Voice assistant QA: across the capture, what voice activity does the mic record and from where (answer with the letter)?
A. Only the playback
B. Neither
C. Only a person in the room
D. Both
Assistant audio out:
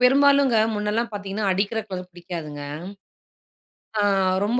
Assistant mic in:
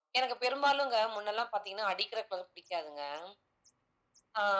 A